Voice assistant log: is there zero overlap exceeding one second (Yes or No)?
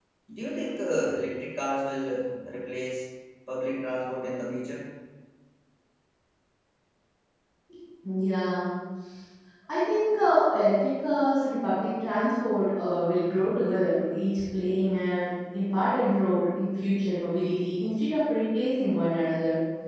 Yes